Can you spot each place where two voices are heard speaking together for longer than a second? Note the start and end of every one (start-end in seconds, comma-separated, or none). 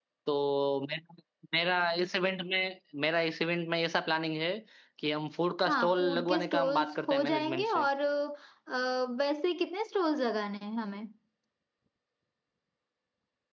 5.6-7.8